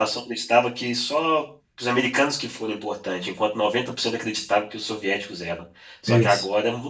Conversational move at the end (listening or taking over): listening